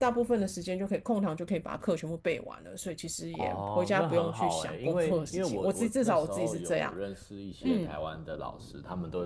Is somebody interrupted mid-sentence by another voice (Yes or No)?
Yes